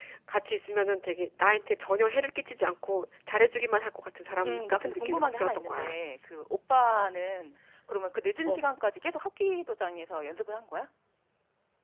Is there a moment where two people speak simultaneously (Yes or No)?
Yes